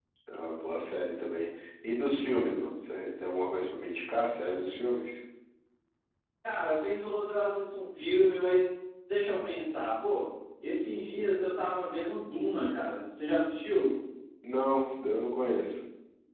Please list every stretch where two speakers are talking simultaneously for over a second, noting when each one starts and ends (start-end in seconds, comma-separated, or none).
none